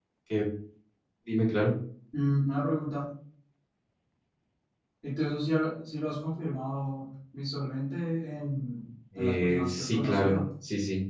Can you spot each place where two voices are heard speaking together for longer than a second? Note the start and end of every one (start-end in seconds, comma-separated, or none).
9.2-10.4